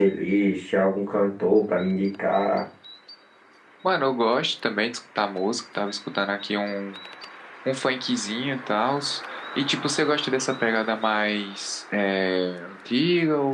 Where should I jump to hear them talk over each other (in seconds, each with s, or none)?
none